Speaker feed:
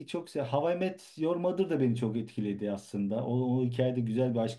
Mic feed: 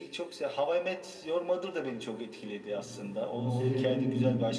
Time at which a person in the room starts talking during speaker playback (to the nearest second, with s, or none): 3 s